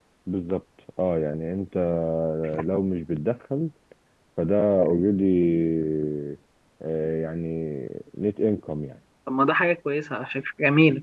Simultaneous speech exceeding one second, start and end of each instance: none

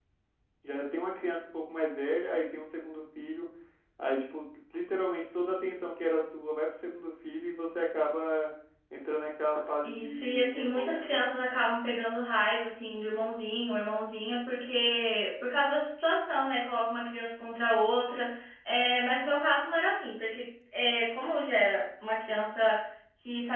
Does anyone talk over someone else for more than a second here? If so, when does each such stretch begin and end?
9.8-11.2

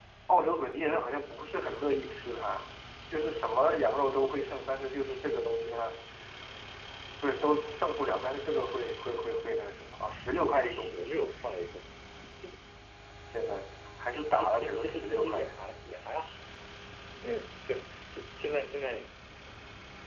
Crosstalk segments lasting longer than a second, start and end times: 14.1-15.5

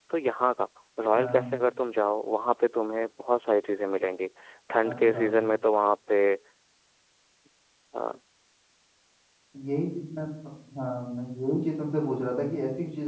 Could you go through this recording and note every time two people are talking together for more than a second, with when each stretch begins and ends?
none

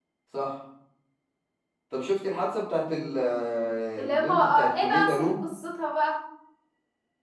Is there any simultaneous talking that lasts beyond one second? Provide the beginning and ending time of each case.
4.0-5.4

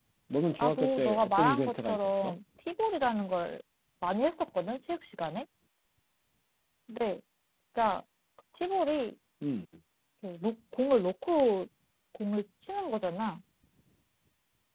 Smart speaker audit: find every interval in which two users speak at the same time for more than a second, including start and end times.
0.6-2.3

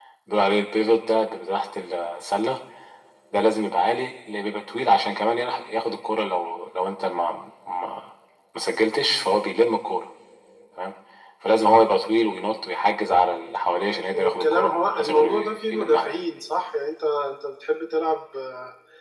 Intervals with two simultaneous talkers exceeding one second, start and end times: 14.1-16.2

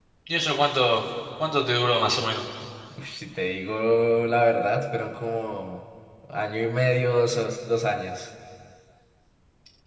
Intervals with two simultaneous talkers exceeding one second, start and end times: none

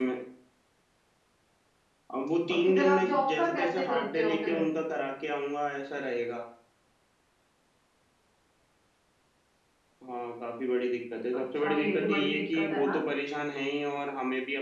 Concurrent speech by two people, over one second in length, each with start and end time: 2.6-4.6, 11.6-13.0

